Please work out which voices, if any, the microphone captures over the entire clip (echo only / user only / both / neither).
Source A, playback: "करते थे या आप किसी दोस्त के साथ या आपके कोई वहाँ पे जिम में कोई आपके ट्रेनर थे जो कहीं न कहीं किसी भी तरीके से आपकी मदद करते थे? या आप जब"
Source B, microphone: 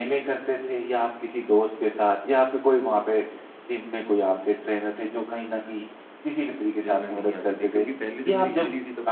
both